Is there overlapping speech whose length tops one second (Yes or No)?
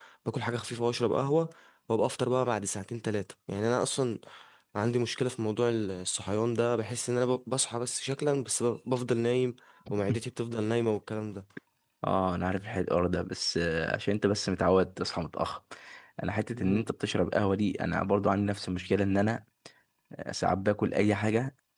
No